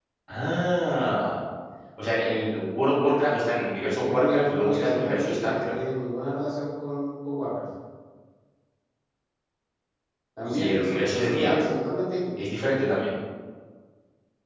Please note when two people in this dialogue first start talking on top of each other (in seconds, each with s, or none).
4.0 s